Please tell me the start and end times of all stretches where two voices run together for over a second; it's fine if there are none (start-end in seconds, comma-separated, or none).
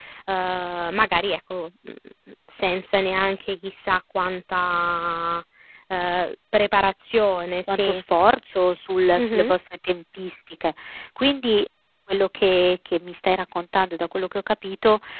none